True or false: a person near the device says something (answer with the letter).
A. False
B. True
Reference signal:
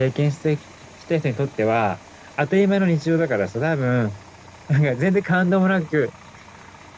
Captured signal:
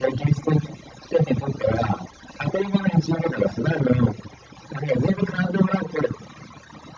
A